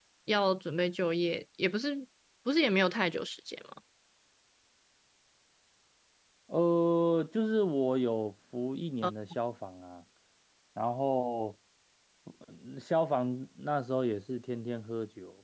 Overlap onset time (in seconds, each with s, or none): none